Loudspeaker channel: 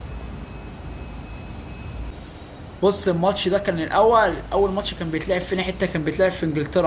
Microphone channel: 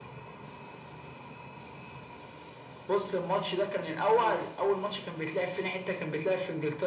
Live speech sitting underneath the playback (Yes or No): Yes